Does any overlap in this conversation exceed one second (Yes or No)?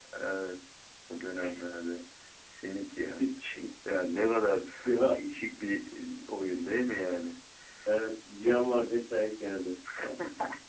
No